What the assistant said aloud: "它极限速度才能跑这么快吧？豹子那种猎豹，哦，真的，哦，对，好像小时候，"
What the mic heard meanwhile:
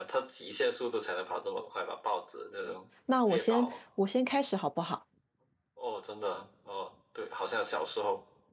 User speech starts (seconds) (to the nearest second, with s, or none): 3 s